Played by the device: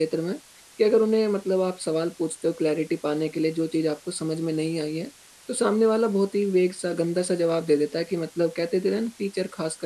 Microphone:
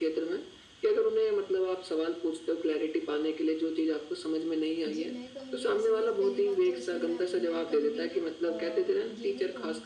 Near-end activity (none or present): present